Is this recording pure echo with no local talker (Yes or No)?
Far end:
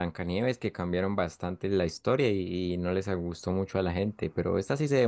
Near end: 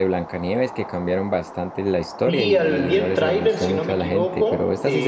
No